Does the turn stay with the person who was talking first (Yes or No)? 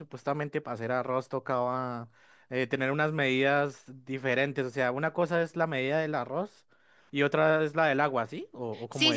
No